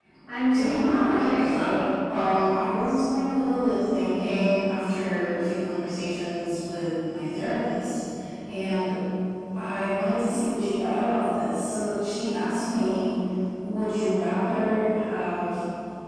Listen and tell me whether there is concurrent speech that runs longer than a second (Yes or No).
Yes